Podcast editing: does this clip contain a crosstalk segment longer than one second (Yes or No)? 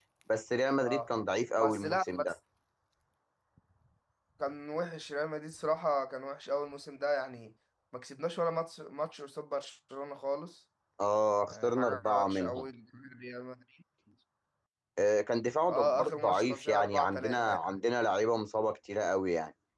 Yes